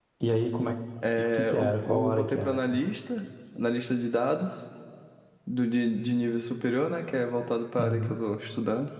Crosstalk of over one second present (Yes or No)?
Yes